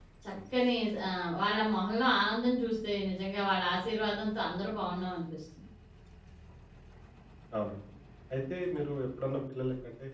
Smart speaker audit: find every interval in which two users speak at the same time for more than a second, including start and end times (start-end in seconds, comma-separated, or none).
none